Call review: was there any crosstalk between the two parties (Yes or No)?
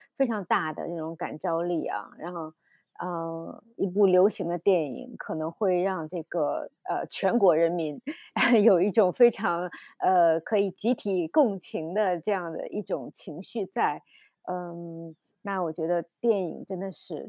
No